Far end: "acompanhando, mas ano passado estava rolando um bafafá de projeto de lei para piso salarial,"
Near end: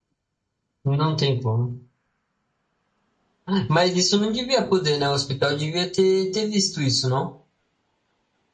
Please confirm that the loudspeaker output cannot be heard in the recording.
Yes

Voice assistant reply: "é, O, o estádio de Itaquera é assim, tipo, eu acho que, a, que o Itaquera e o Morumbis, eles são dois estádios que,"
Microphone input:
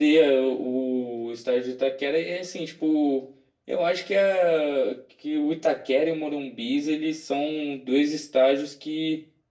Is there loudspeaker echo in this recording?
Yes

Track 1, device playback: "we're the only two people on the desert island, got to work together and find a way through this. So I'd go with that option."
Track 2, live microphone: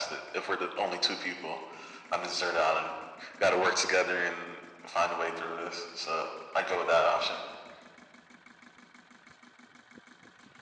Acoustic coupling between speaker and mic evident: Yes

